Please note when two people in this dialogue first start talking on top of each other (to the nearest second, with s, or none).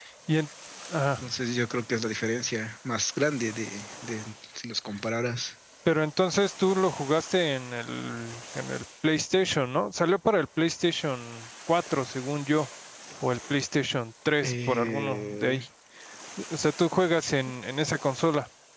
14 s